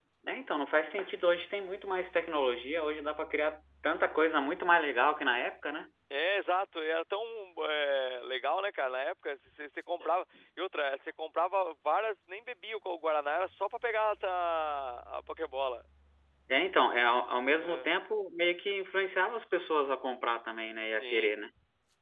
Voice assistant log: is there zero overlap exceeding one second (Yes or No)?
Yes